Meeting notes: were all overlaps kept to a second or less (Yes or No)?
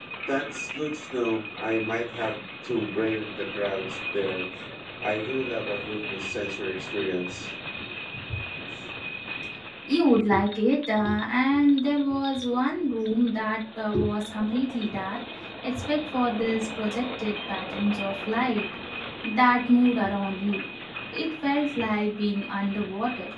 Yes